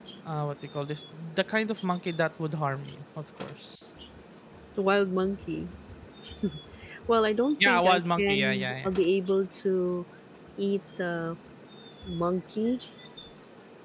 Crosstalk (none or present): present